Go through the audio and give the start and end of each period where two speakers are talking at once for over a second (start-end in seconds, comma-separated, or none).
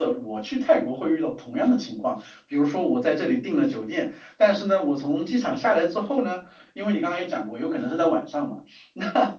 none